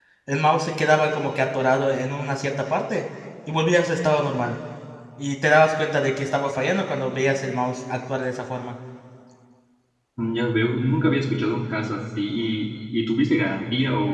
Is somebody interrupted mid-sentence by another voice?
No

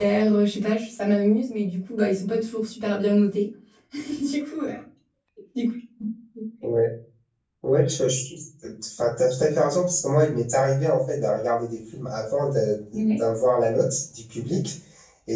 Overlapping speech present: No

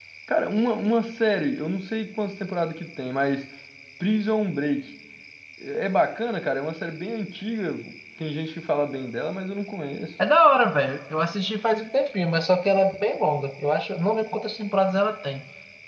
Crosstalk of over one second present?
No

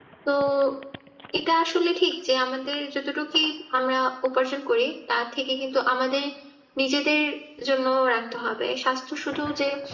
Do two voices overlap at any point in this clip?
No

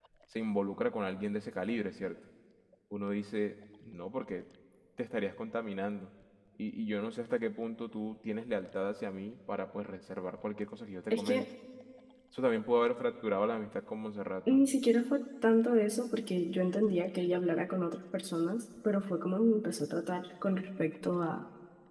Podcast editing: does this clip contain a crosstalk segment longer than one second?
No

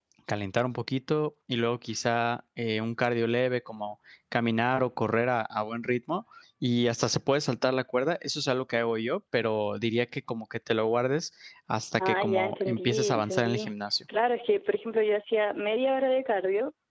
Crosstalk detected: Yes, from 12.0 s

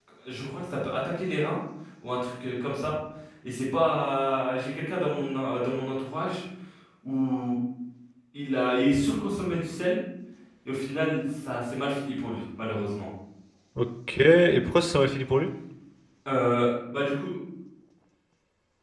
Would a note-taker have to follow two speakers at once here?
No

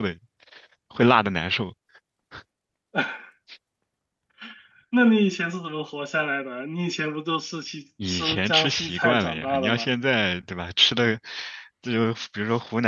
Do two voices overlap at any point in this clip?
Yes, from 8.0 s

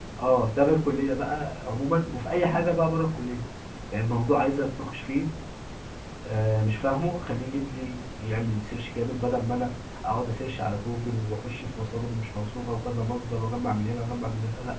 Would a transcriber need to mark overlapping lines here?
No

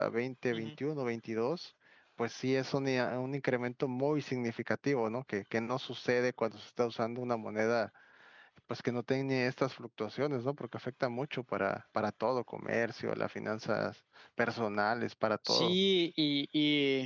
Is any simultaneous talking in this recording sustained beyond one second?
No

